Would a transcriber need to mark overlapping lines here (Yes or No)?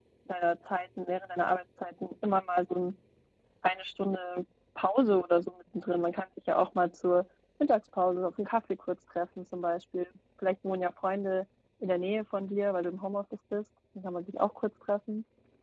No